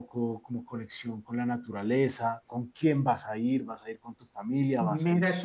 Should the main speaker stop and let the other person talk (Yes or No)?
Yes